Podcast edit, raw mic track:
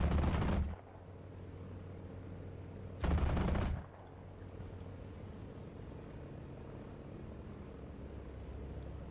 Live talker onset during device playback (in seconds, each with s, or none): none